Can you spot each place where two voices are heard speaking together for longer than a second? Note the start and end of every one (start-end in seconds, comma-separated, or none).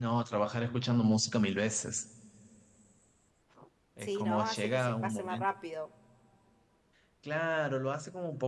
4.0-5.5